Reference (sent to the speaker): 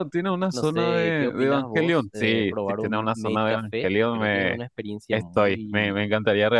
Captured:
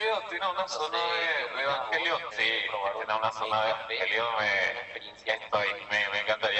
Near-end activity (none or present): none